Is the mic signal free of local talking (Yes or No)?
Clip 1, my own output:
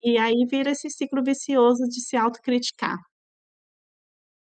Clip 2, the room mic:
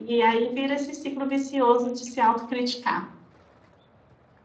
Yes